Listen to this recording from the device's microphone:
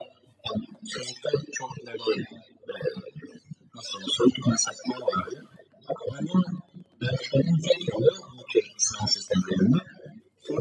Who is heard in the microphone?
echo only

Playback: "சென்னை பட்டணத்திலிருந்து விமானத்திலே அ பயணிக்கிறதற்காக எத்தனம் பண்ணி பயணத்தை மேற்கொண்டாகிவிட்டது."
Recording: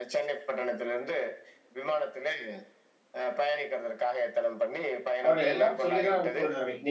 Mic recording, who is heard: both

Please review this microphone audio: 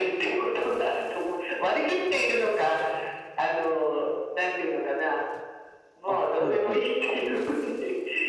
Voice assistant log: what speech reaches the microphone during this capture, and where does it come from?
both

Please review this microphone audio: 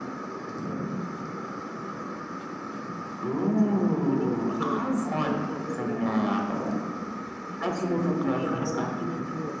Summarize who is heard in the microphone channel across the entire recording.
both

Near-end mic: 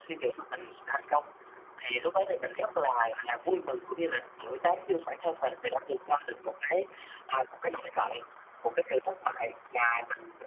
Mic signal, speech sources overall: echo only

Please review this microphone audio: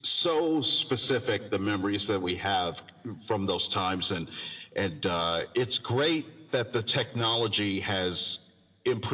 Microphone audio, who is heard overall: echo only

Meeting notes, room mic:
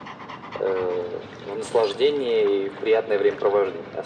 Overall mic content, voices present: echo only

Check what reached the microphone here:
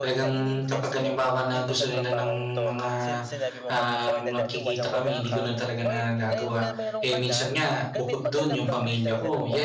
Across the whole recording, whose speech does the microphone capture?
both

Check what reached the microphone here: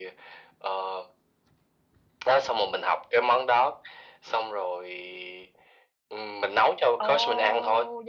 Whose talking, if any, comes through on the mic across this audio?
both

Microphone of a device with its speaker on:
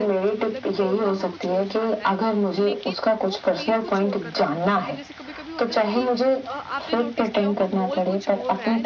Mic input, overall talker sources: both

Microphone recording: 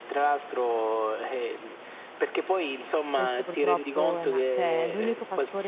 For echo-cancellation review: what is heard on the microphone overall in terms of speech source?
both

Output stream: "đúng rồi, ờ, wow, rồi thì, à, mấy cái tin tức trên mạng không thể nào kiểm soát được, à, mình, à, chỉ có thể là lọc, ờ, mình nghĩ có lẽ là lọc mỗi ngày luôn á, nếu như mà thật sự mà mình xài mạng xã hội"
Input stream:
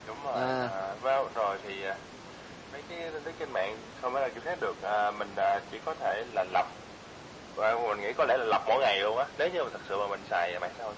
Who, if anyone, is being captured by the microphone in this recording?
both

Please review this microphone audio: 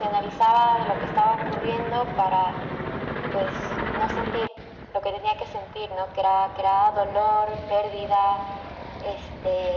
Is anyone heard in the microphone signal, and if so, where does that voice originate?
echo only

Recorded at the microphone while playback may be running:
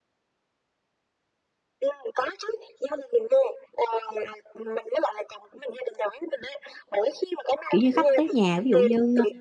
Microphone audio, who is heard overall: both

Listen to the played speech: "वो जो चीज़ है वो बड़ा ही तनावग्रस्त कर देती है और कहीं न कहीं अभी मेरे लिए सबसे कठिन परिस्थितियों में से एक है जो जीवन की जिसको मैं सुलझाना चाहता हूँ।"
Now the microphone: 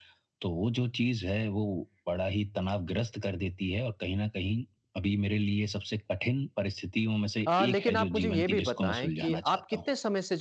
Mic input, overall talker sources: both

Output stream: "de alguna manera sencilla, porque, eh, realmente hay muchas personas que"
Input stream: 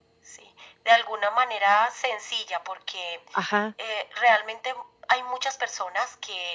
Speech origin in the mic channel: both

